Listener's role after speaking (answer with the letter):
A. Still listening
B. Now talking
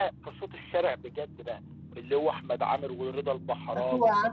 B